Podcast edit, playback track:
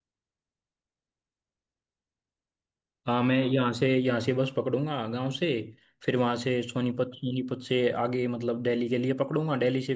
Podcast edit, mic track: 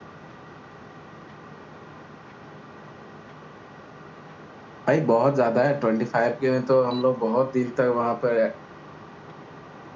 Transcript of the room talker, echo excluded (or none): भाई बहुत ज्यादा है ट्वेंटी फाइव के में तो हम लोग बहुत दिन तक वहां पर